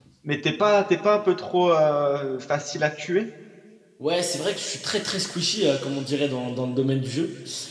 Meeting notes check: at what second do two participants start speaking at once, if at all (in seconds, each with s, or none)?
none